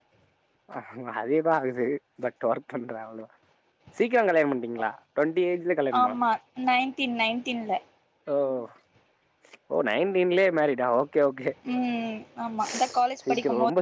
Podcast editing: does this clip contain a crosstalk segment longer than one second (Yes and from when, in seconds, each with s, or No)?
No